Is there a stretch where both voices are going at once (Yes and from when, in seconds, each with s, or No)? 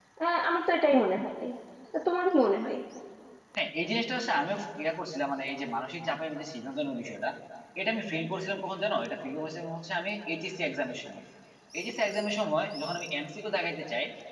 No